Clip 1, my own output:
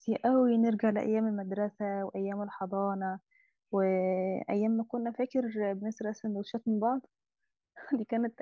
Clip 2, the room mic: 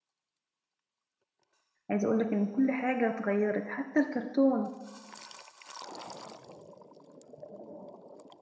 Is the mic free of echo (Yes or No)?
Yes